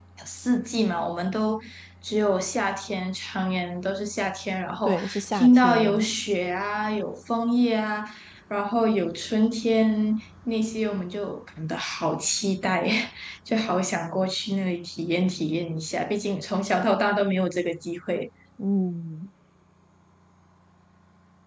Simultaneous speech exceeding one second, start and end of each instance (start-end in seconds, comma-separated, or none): 4.8-6.1